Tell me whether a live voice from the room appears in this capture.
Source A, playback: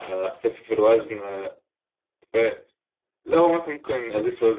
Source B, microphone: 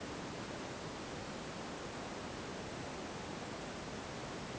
No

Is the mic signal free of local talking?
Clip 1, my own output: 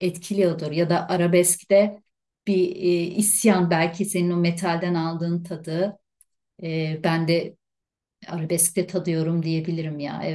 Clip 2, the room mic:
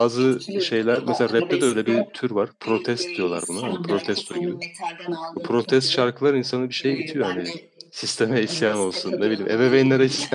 No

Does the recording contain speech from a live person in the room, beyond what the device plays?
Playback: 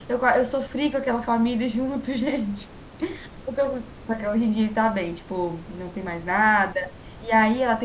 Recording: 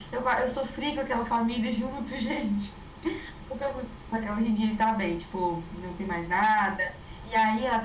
No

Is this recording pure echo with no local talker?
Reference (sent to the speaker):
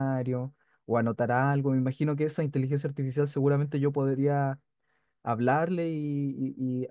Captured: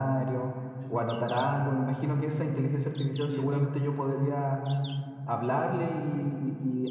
No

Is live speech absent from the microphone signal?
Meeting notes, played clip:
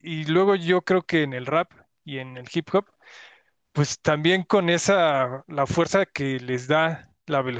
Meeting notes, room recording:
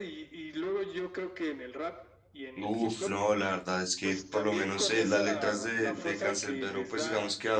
No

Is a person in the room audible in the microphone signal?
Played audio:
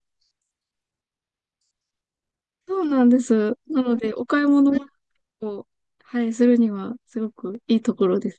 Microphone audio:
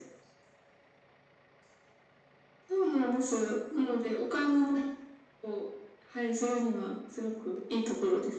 No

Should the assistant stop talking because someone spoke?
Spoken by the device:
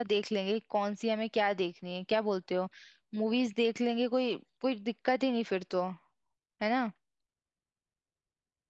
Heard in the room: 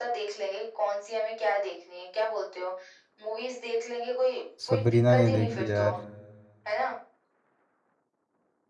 Yes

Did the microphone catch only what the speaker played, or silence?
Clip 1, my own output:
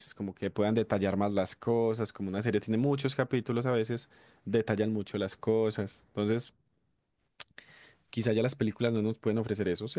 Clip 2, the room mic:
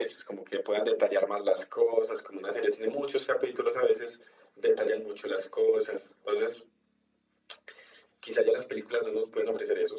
Yes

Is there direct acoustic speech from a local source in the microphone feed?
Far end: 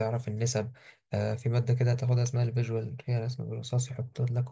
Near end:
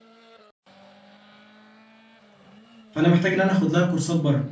Yes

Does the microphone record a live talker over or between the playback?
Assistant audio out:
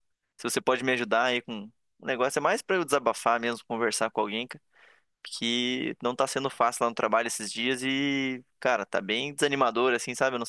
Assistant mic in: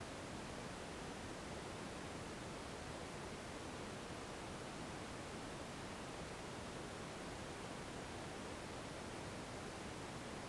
No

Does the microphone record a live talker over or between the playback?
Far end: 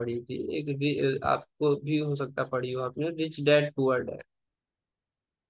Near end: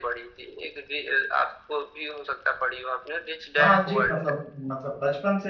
Yes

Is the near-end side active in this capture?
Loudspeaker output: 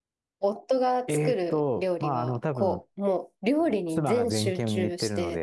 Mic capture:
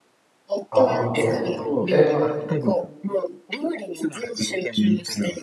Yes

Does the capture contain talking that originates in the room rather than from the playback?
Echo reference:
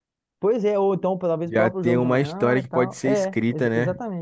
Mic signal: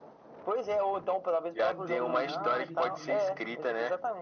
Yes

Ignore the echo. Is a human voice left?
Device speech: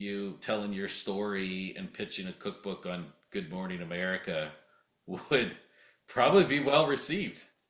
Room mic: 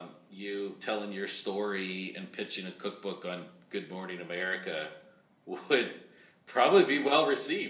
No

